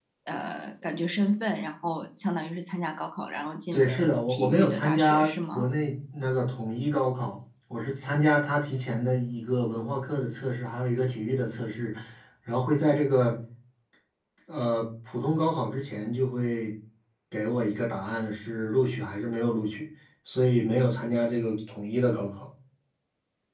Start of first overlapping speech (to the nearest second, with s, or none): 4 s